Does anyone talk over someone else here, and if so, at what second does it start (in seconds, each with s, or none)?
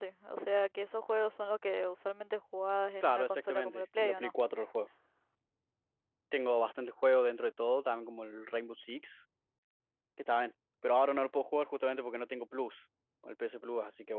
3.0 s